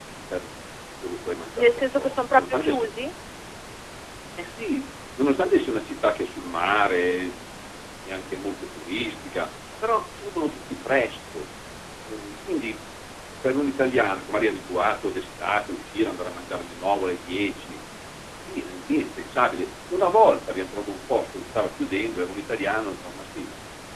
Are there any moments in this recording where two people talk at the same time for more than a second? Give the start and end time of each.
1.6-2.9

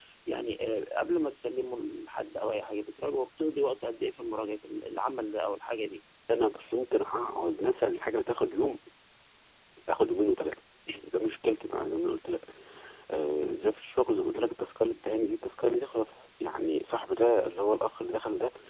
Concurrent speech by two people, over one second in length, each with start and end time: none

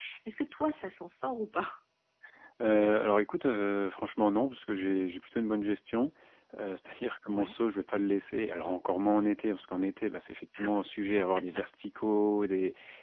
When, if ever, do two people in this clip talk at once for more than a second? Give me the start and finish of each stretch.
none

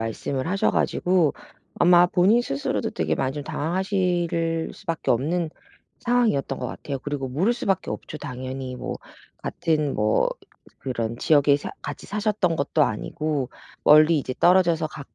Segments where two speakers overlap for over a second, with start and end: none

